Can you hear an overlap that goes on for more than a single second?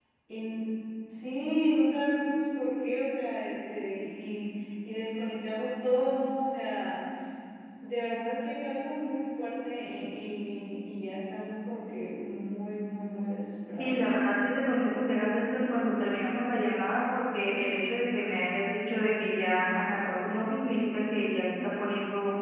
No

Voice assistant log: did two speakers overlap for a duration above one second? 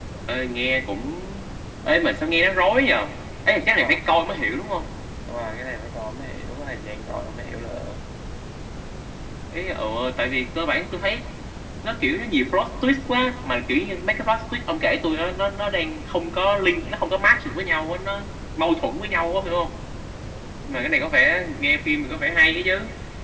No

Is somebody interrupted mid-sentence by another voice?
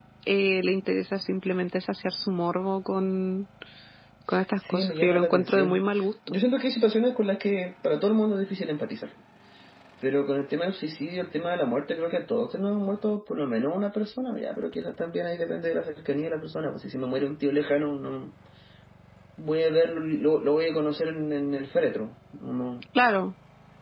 Yes, from 4.6 s

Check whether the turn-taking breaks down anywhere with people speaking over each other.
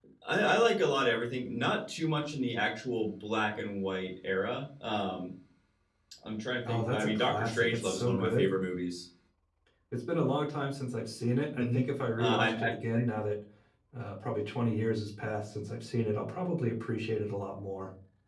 Yes, from 6.7 s

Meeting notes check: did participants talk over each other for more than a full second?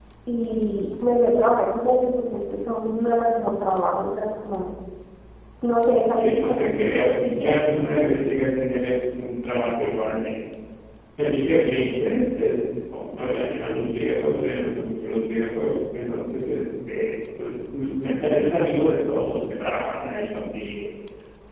Yes, from 6.2 s

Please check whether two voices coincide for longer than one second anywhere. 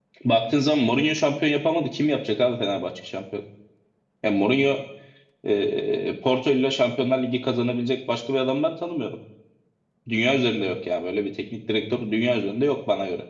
No

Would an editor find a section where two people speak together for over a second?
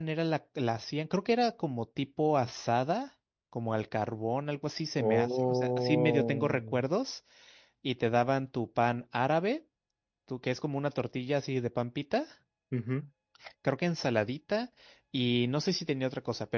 Yes, from 5.0 s

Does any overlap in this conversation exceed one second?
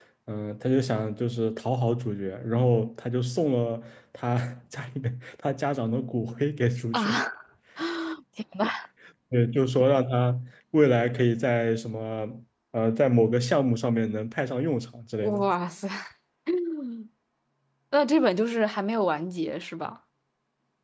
No

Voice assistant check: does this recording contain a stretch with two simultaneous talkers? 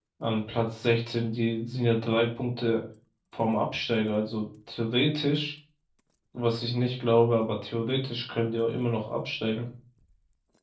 No

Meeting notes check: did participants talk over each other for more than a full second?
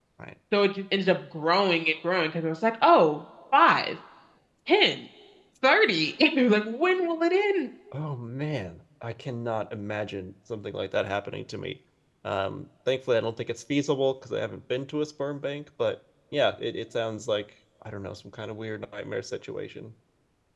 No

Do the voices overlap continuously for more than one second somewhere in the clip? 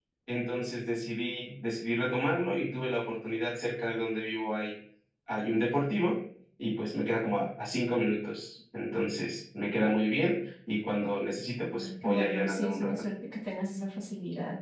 Yes, from 11.8 s

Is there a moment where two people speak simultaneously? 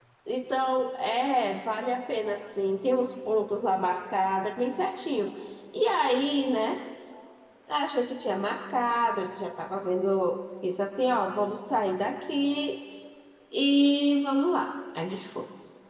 No

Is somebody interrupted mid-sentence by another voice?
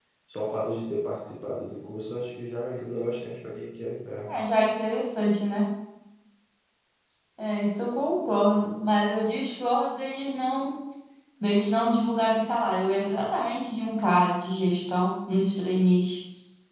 No

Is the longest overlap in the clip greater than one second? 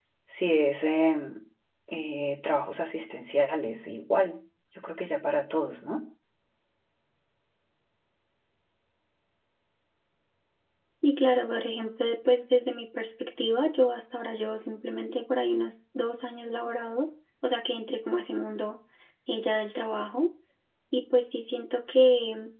No

